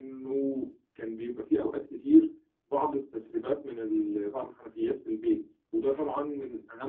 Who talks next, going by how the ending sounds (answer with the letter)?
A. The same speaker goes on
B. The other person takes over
A